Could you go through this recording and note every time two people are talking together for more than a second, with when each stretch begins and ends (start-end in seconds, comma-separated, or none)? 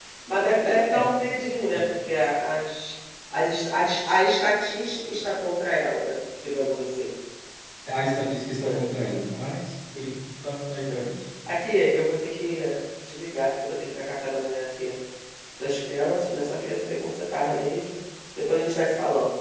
none